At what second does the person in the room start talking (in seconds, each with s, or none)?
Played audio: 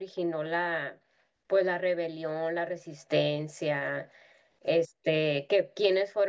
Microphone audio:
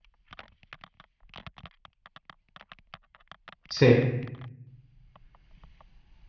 3.7 s